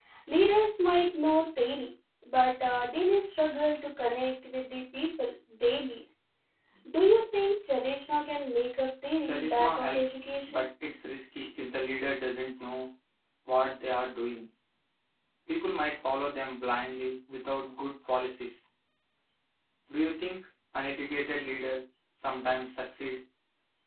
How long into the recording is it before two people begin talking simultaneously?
9.2 s

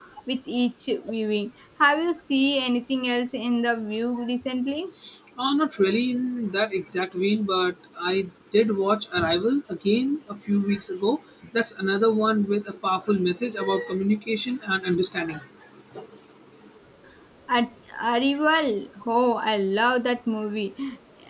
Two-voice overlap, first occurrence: none

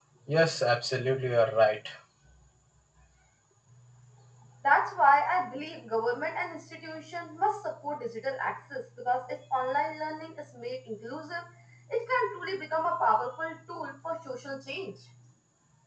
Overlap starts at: none

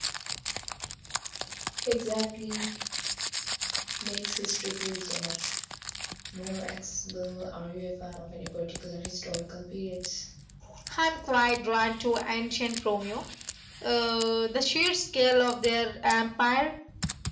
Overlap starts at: none

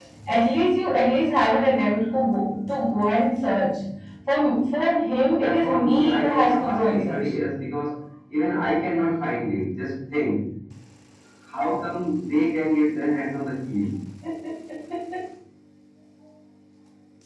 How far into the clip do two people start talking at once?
5.3 s

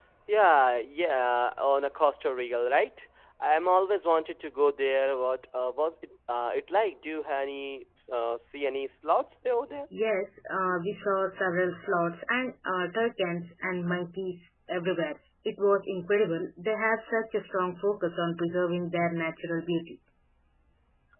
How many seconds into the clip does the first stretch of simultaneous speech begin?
none

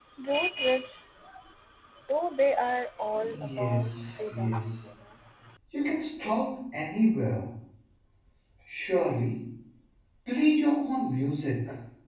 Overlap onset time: 3.1 s

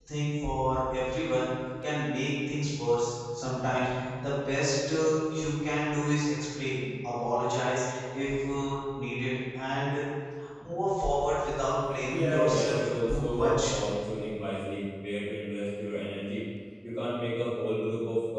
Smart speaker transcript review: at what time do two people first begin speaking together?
12.1 s

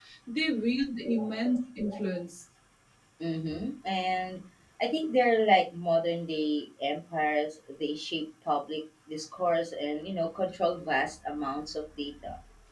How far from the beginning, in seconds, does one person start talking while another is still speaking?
none

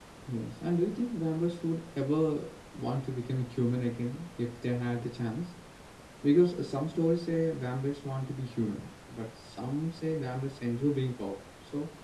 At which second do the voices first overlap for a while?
none

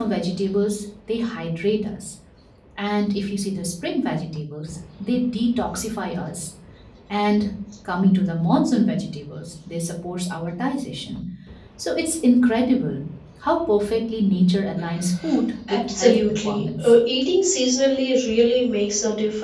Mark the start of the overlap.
15.7 s

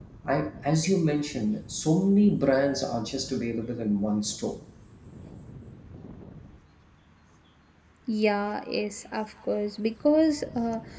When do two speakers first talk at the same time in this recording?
none

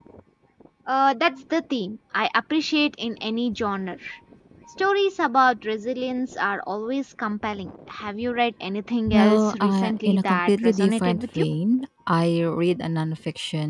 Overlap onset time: 9.1 s

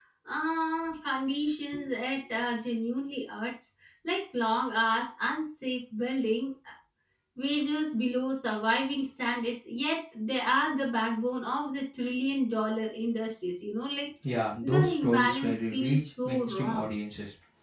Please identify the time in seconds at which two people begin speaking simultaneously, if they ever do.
14.6 s

